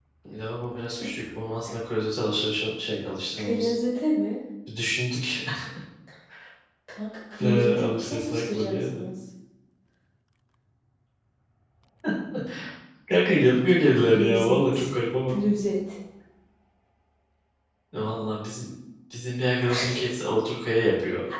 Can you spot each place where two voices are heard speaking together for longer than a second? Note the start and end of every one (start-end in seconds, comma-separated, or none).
7.4-9.0, 13.4-14.7